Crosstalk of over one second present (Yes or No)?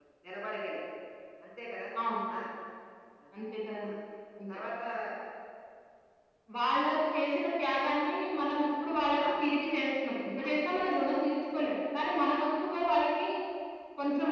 No